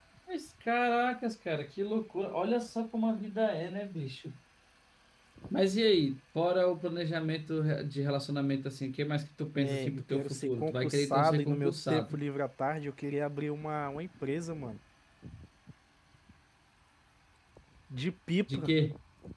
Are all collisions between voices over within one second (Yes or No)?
No